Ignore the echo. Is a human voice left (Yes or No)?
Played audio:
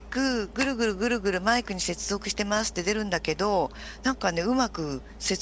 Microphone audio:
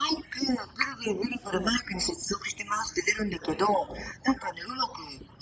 Yes